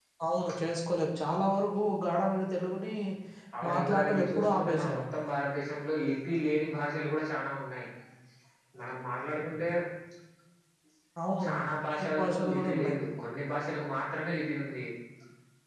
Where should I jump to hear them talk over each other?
3.7 s

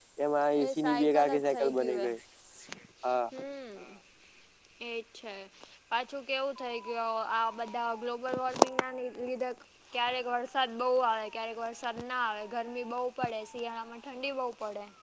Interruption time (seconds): 0.7 s

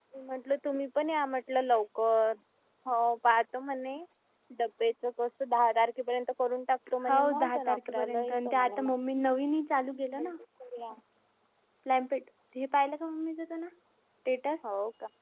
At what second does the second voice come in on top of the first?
7.1 s

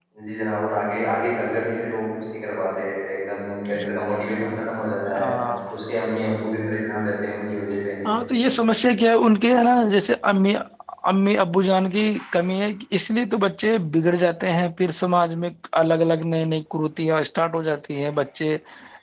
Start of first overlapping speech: none

